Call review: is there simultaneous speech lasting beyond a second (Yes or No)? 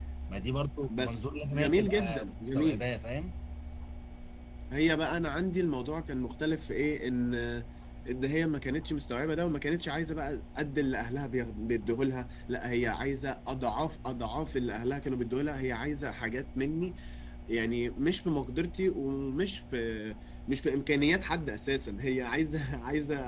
Yes